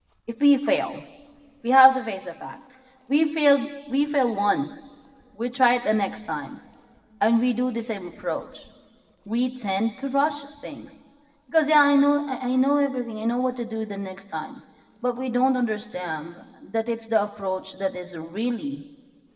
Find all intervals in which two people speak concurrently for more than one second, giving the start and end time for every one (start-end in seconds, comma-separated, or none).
none